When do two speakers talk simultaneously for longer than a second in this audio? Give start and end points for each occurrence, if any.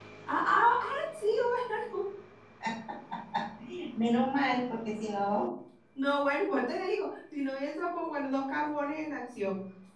none

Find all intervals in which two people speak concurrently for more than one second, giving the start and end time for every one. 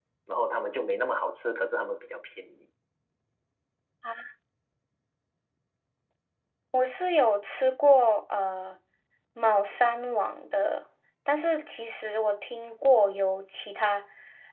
none

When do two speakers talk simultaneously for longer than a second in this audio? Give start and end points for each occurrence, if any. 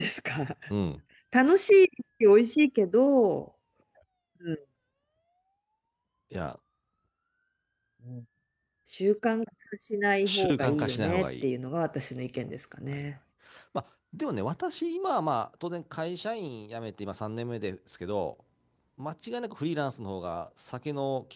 10.2-11.4

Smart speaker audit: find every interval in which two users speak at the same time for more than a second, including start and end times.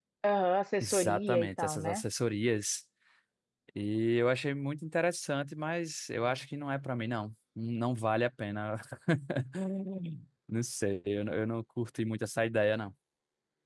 0.8-2.0

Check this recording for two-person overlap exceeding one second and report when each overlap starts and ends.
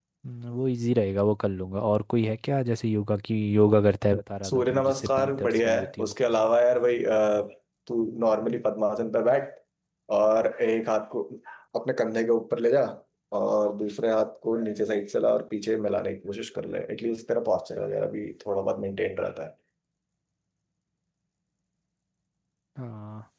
4.5-6.1

